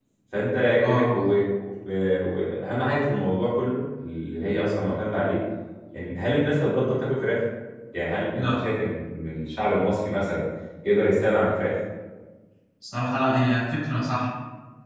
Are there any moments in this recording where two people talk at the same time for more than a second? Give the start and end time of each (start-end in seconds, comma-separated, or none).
none